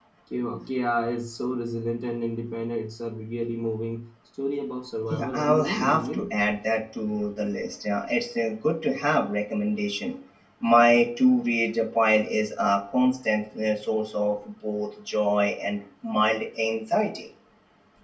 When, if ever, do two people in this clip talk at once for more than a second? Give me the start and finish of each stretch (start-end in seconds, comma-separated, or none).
5.1-6.3